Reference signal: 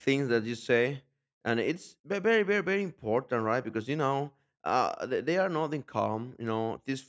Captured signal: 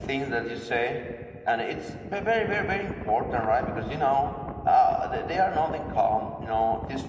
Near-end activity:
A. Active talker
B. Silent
B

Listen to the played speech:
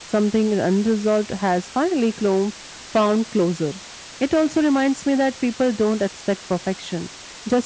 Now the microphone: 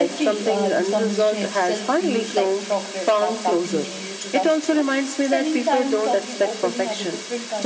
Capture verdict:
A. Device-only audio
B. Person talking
B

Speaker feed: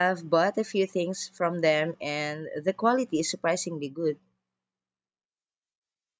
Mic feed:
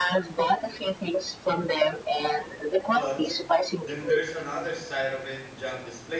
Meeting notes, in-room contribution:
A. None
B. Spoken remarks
B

